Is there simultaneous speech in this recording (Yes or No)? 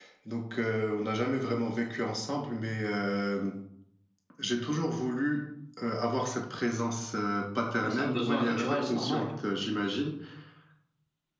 Yes